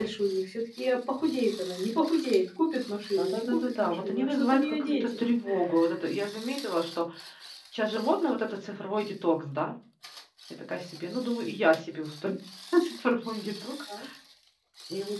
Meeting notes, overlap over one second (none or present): present